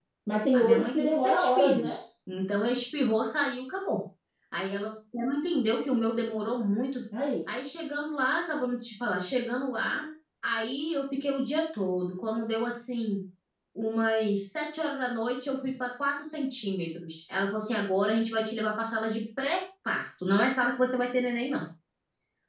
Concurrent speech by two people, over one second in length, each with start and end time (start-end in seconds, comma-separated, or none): 0.5-2.0